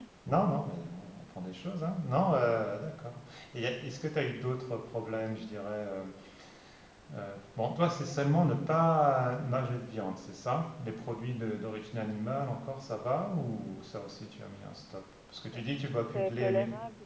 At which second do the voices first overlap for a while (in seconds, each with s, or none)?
15.4 s